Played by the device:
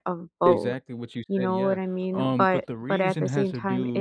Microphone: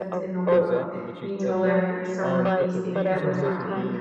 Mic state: both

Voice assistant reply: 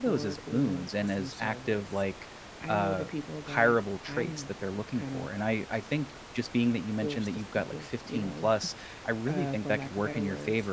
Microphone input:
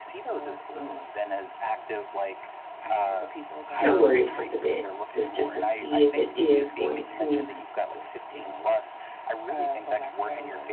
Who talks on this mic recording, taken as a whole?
both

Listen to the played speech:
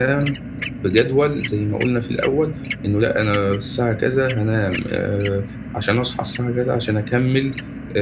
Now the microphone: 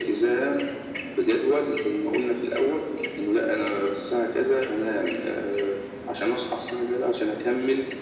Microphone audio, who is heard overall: echo only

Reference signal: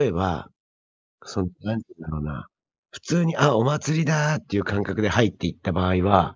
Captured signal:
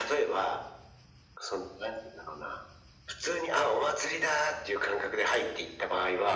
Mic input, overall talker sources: echo only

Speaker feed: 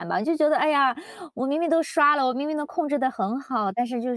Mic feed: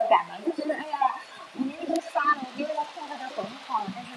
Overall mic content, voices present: echo only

